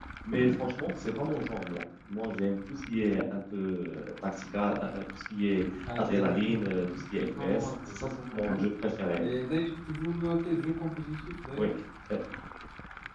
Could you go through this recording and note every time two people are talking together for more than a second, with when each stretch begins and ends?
6.0-8.4

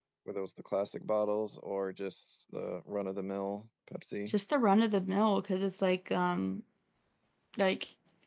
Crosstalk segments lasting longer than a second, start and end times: none

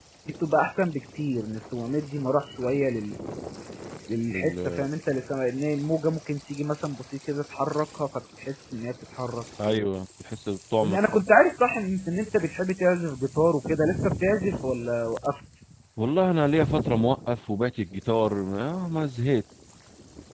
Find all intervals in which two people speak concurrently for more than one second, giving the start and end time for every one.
none

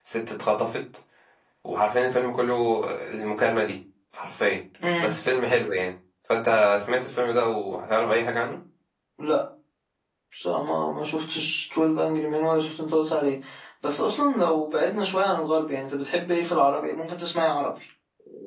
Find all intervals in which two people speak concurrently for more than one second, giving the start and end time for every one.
none

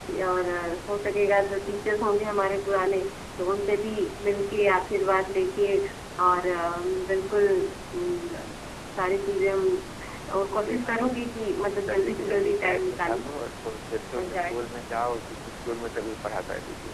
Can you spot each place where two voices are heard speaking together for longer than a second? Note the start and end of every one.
11.8-13.2

